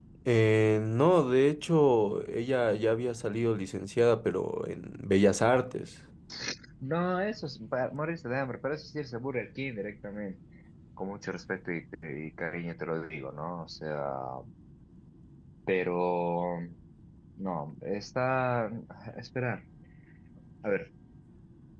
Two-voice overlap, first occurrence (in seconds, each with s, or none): none